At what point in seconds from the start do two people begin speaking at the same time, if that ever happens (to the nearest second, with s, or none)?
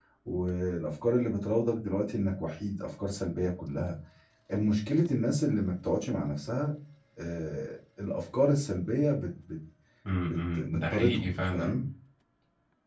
10 s